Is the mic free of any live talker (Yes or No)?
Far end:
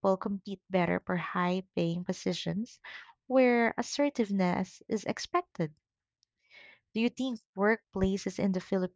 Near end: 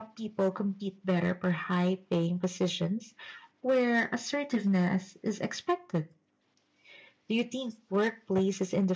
Yes